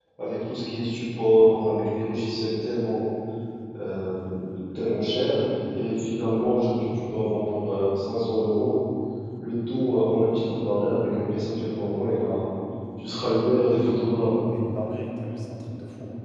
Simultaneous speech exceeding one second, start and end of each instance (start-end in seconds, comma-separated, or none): none